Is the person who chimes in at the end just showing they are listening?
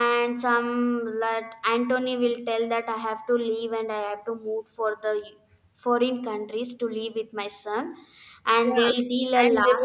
No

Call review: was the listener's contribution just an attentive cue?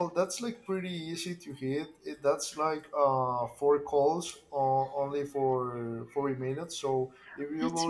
Yes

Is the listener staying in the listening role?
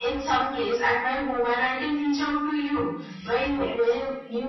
Yes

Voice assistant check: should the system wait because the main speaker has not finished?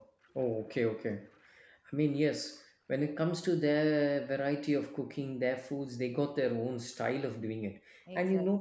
Yes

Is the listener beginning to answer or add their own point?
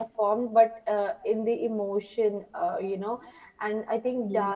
No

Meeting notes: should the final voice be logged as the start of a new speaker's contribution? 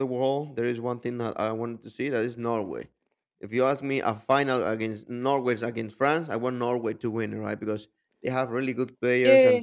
No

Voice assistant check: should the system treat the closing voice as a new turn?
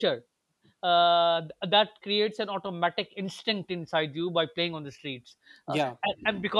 No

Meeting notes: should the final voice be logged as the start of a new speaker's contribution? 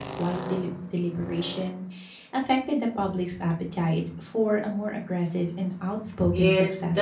Yes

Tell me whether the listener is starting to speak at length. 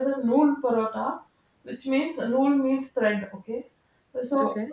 No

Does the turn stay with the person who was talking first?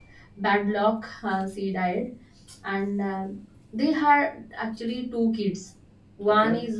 Yes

